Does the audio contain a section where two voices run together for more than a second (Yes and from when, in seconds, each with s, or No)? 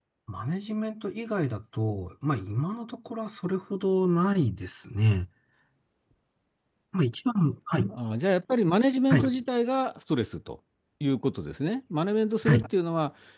No